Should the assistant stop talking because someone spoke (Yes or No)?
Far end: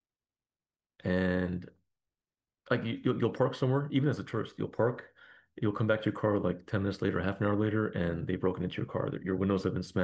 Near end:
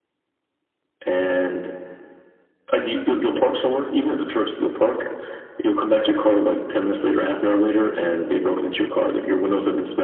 No